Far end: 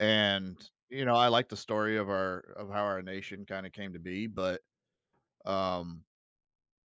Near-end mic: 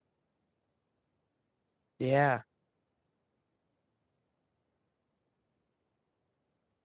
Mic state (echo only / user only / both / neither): user only